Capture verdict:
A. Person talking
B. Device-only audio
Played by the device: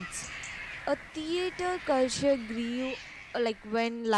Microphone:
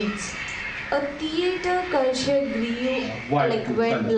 A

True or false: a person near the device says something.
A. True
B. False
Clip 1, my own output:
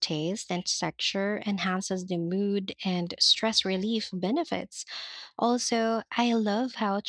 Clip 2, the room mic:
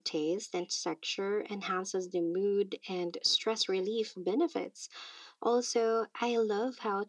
B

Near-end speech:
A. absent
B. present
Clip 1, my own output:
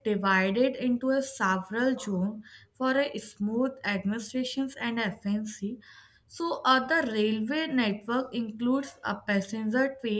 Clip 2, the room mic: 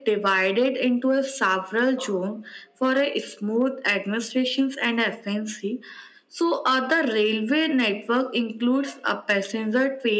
A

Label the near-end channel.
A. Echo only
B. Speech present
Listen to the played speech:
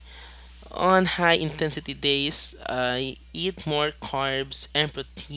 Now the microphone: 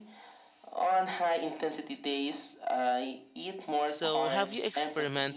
B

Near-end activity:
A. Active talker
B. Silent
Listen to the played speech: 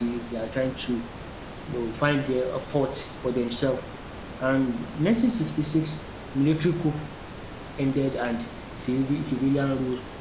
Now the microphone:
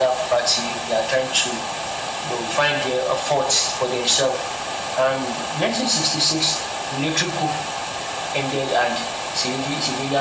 B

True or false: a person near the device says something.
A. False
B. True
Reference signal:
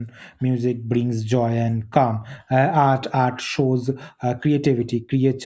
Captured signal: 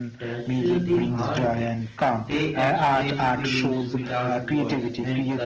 B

